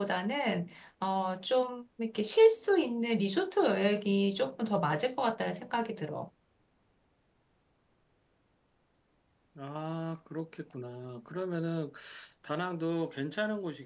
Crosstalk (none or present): none